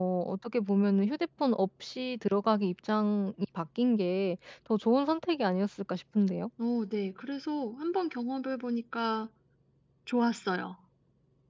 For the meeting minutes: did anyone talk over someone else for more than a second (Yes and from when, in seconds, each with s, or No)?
No